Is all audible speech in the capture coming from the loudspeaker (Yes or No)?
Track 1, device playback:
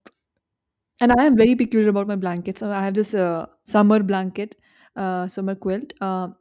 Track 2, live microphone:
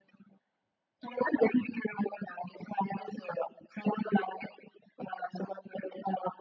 Yes